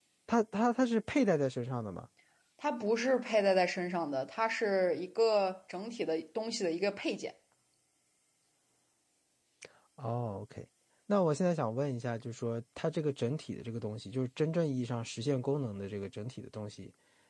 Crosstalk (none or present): none